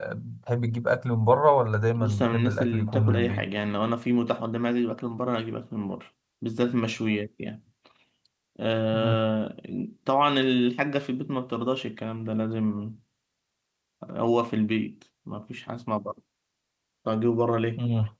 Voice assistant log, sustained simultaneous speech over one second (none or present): present